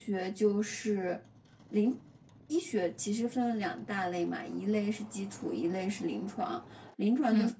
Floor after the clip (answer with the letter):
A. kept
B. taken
A